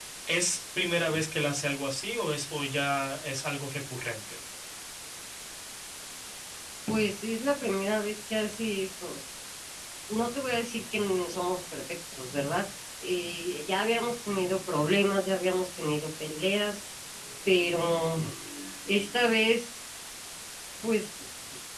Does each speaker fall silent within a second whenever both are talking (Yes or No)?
Yes